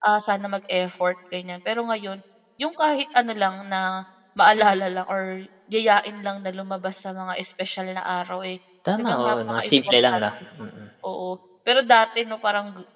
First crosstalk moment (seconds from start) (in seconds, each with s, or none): 8.8 s